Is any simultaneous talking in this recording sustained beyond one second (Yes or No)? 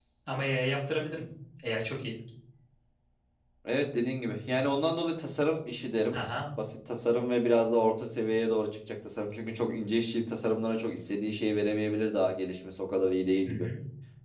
No